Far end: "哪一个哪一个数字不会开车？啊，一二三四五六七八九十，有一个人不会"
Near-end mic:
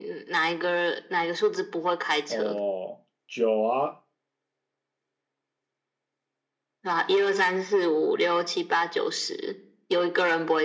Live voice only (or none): 哦，酒啊，